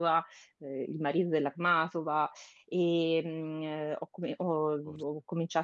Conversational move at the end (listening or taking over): listening